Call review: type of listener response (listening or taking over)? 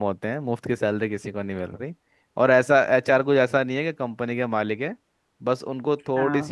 listening